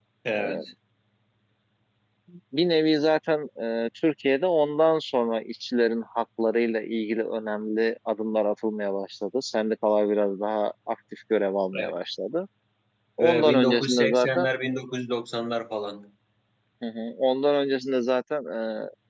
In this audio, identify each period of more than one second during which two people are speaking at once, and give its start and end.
13.2-14.5

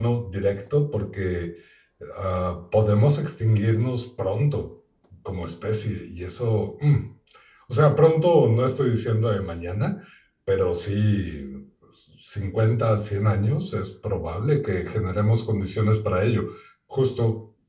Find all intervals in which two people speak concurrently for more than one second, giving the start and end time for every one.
none

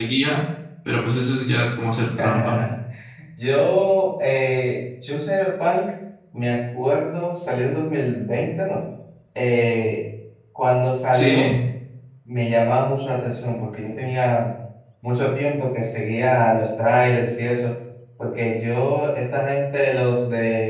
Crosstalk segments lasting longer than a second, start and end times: none

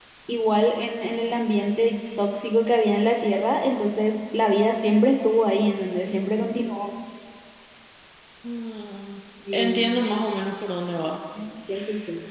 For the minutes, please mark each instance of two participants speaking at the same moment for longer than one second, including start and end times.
none

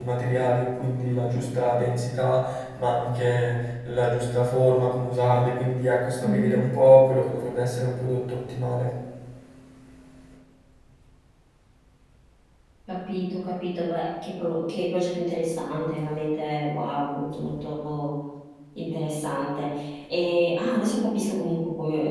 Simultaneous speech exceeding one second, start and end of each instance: none

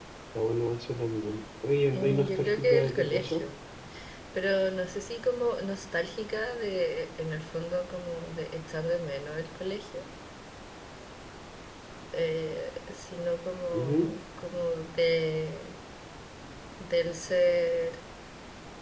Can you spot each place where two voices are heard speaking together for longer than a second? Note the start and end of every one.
1.9-3.4

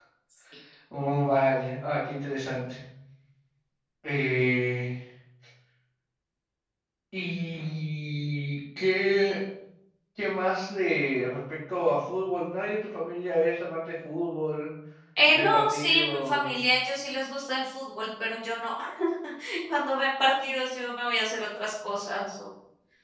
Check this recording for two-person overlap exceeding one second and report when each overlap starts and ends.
15.3-16.5

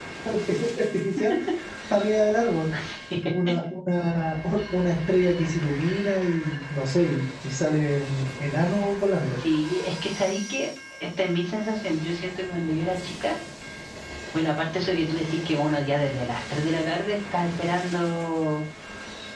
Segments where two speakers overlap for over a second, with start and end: none

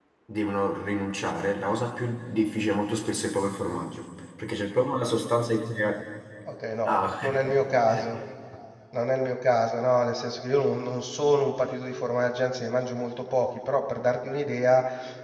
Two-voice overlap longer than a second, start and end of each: none

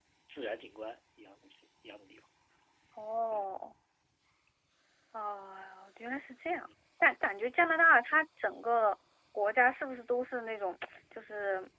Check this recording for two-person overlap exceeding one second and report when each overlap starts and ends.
none

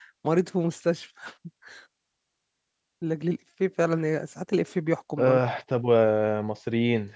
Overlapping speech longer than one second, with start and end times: none

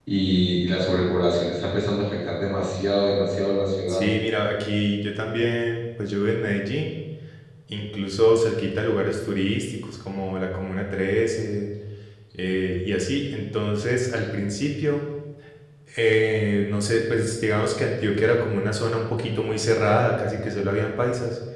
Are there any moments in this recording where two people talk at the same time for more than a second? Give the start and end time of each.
none

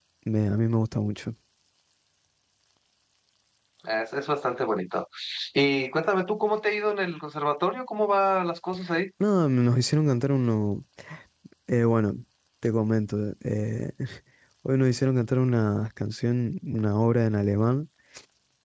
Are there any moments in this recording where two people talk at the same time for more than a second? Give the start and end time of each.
none

